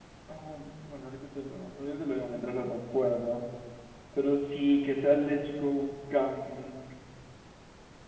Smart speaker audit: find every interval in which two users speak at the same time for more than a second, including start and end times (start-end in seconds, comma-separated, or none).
none